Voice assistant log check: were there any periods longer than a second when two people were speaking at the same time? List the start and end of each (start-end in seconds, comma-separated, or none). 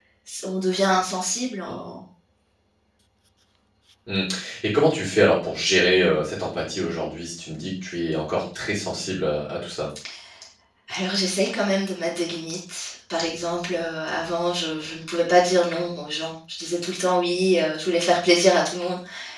none